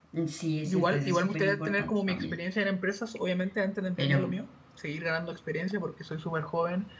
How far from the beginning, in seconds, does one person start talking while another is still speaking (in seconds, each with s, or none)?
0.6 s